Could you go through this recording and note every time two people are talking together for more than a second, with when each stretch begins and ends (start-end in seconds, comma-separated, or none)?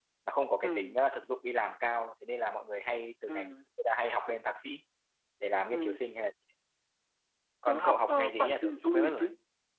7.7-9.2